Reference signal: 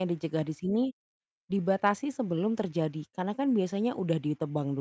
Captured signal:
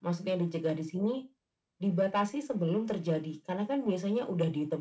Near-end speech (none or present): none